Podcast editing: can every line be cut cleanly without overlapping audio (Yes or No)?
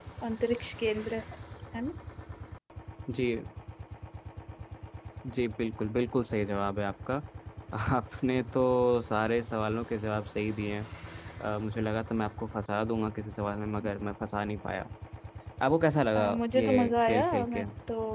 No